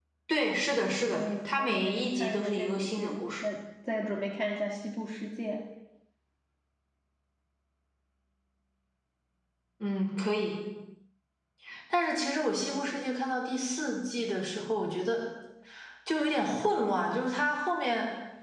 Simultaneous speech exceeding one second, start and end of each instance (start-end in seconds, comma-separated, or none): 1.0-3.4